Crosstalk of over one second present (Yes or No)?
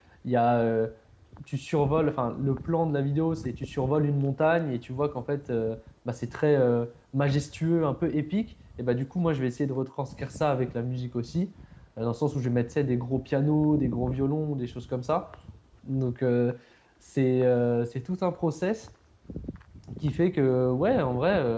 No